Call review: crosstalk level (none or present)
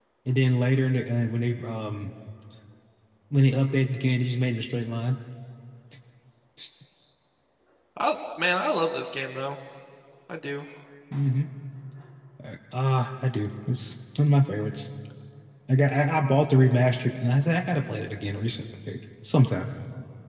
none